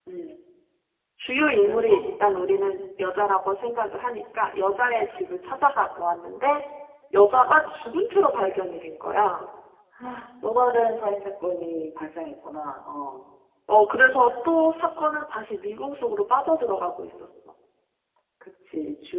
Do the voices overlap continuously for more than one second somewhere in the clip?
No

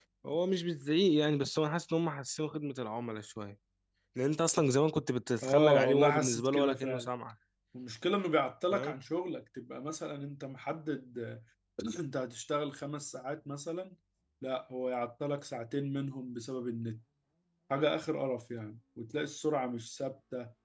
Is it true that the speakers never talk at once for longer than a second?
No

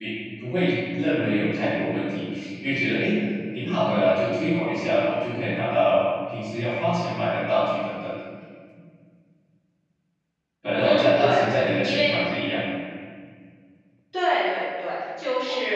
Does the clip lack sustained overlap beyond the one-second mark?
No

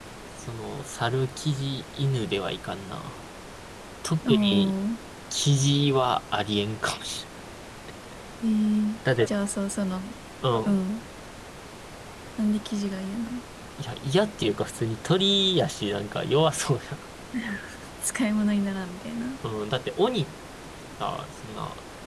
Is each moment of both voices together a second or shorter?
Yes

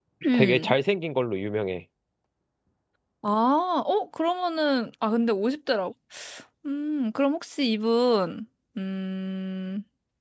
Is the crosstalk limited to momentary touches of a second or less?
Yes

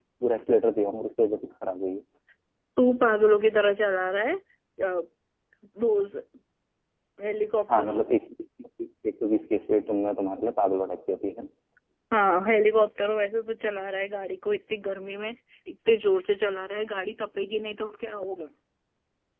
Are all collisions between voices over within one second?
Yes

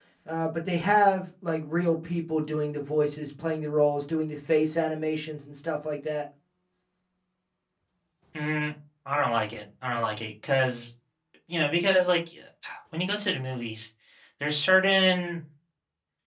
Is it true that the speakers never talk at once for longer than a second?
Yes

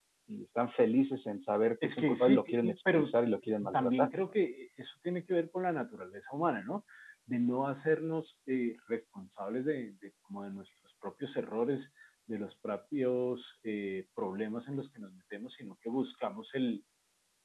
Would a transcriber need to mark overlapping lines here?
Yes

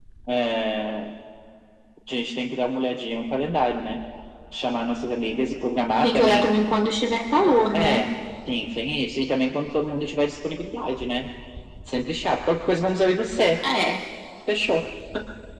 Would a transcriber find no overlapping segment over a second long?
Yes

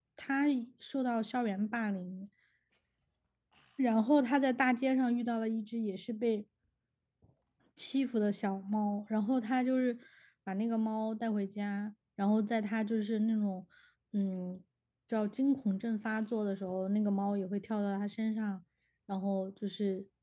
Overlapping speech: No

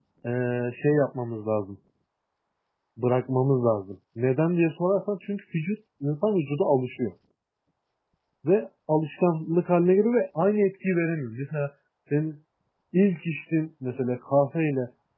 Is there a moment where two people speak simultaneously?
No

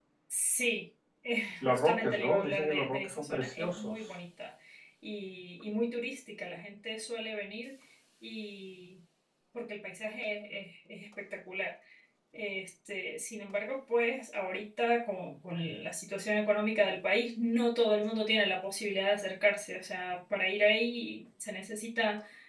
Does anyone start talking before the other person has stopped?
Yes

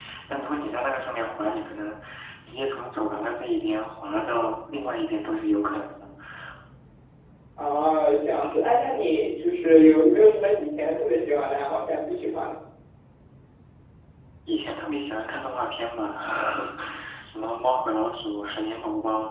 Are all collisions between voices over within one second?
Yes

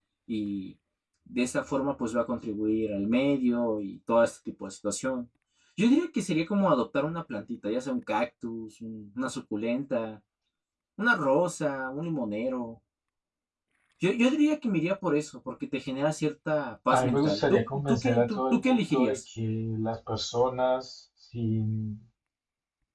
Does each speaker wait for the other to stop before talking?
No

